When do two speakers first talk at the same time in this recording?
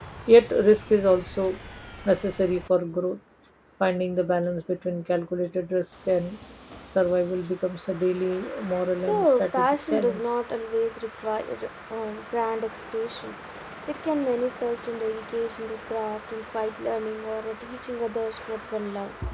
9.0 s

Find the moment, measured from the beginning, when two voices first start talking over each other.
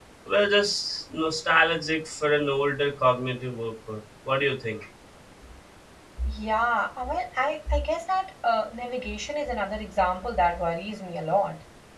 none

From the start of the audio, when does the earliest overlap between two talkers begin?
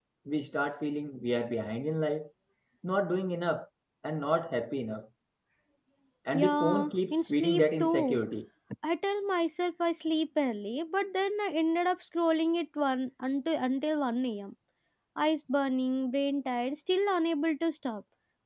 6.3 s

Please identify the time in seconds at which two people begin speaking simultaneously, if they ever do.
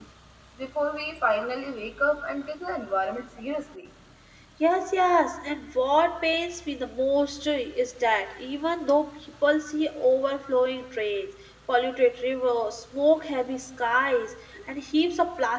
none

